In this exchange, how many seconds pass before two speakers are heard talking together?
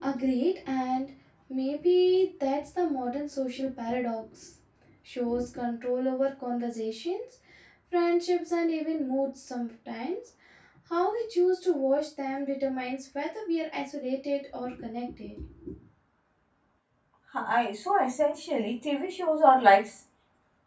none

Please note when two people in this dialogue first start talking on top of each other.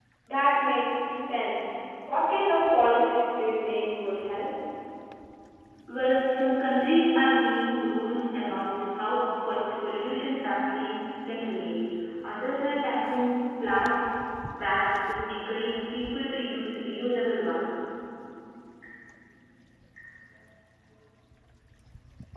none

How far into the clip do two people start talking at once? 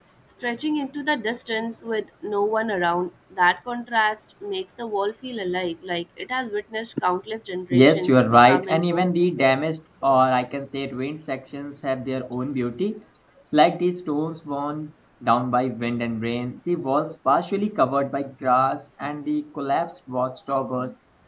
8 s

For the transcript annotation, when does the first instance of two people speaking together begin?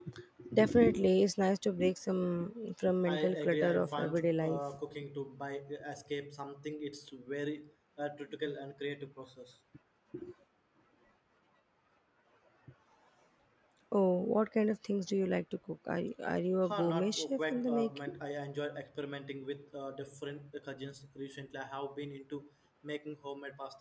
3 s

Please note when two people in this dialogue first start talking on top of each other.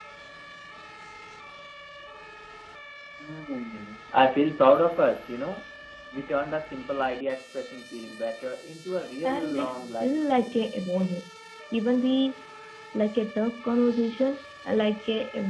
9 s

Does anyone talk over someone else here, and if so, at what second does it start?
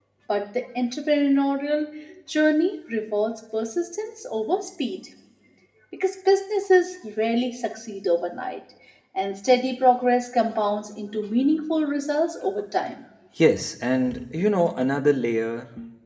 none

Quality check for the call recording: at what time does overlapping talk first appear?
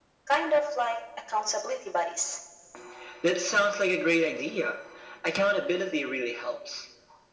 none

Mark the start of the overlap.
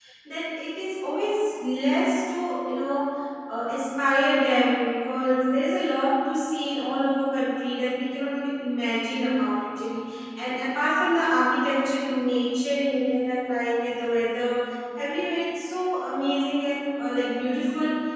none

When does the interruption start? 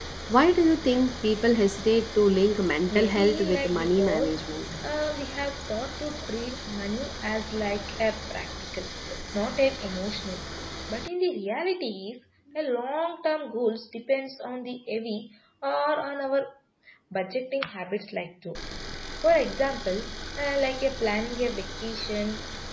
3 s

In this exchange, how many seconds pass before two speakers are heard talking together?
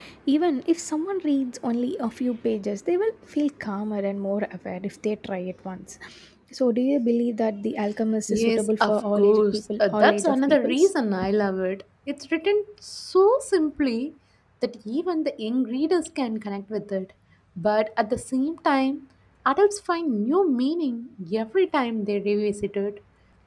8 s

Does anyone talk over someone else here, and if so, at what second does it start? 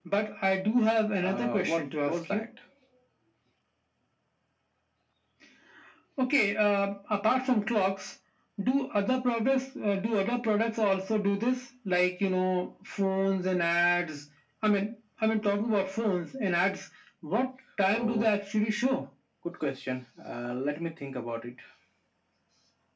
1 s

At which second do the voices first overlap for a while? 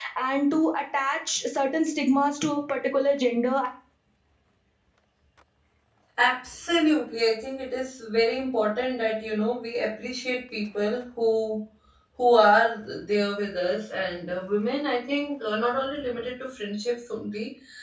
none

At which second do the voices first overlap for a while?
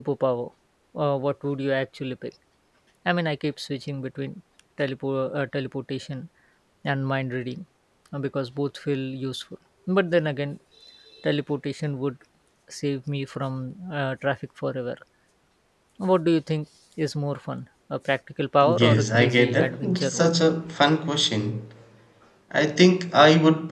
19 s

